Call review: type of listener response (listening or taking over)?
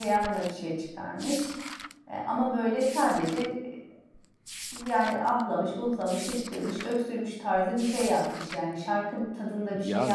taking over